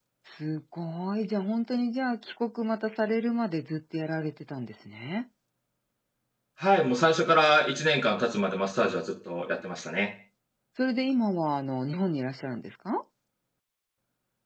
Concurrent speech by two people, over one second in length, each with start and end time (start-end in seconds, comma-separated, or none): none